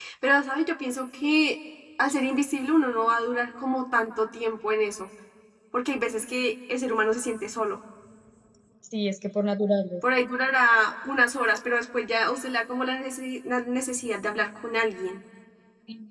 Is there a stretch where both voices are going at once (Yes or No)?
No